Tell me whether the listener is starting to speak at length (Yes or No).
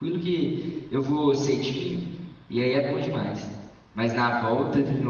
No